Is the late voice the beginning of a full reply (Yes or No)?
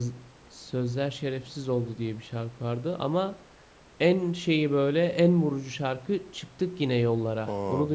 Yes